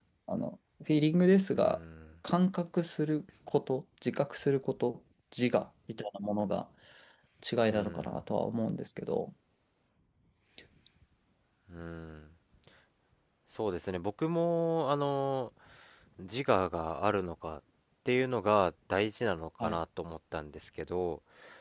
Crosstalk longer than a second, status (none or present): none